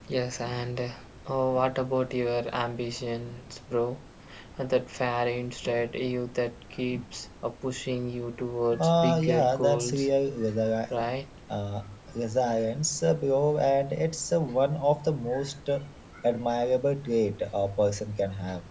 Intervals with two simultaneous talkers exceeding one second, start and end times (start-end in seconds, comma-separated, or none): 8.8-10.1